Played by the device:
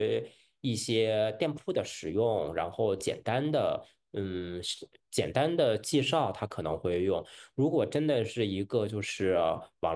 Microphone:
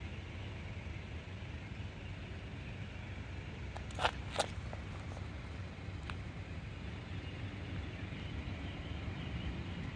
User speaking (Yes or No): No